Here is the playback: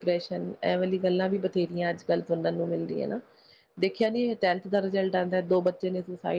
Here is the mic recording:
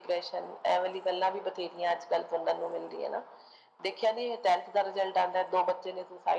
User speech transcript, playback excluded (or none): none